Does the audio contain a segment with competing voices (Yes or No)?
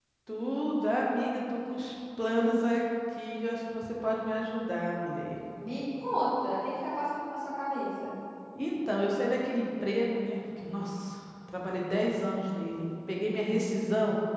No